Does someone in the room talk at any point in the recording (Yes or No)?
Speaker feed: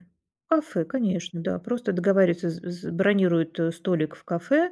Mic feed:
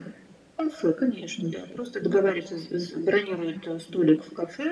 No